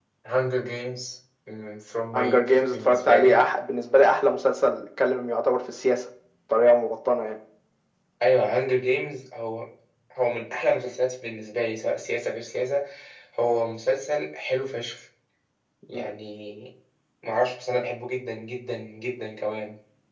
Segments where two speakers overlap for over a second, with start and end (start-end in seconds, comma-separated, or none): 2.1-3.4